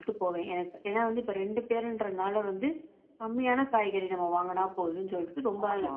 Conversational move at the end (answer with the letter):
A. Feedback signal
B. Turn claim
A